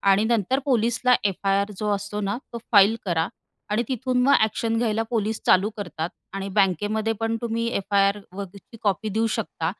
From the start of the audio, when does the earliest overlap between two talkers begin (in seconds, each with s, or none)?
none